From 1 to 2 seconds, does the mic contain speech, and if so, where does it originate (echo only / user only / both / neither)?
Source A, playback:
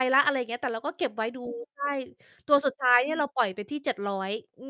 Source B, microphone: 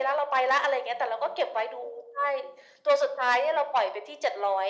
echo only